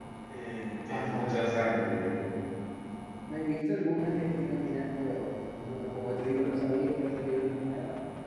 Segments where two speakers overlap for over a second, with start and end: 0.9-2.2

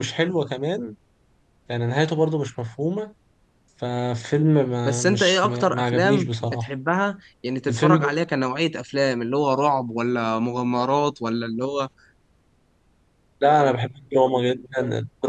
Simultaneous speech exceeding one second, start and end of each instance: 4.8-6.7

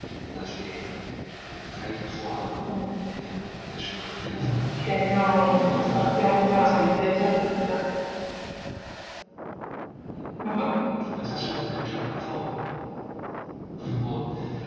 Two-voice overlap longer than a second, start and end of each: 5.5-6.9

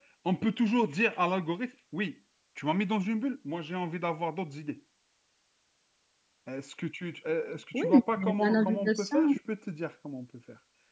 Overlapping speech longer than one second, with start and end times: 7.7-9.3

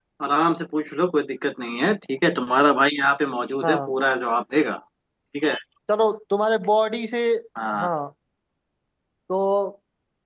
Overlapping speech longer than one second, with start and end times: none

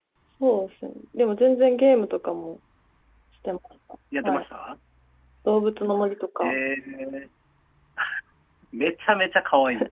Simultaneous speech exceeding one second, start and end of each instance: none

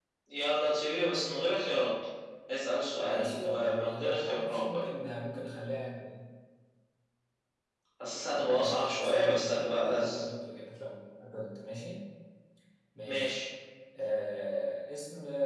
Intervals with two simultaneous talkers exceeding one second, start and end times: 3.0-4.7, 8.3-10.1

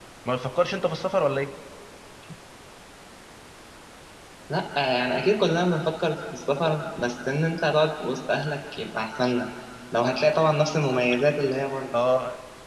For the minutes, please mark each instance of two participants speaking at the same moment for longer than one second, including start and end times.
none

